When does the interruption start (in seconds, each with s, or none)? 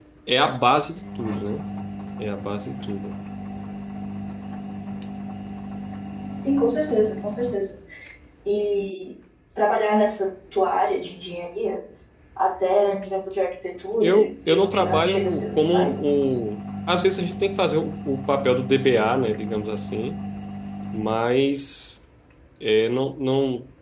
14.0 s